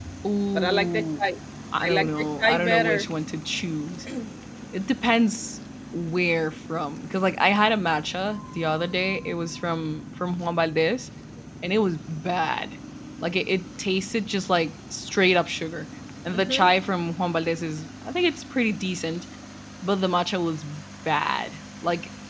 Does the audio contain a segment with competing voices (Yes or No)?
Yes